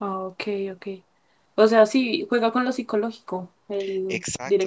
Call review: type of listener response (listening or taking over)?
taking over